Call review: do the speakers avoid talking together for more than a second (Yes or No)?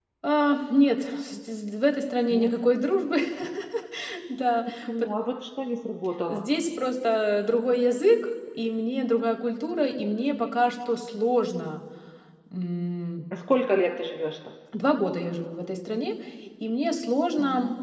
Yes